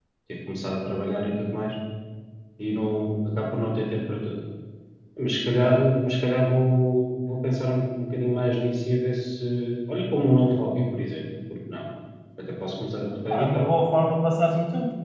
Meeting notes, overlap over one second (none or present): none